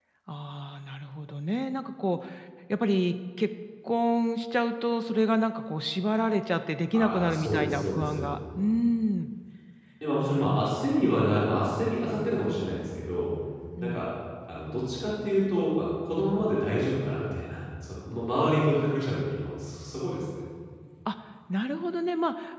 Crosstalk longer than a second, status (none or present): present